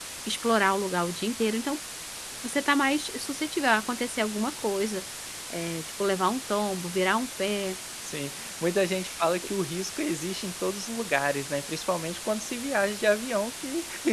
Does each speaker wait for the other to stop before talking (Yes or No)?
Yes